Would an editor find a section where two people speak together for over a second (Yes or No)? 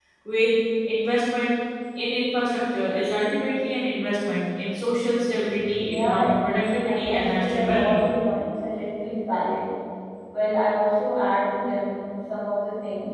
Yes